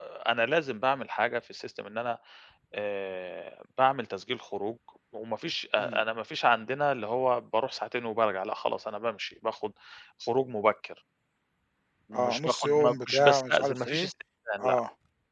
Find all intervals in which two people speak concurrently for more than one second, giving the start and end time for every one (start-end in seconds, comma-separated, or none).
12.1-14.1